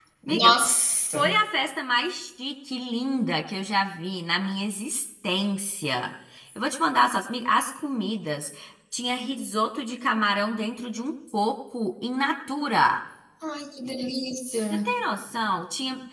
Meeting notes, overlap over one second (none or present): none